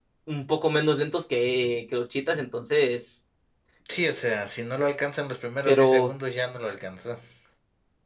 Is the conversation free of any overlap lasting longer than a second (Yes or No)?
Yes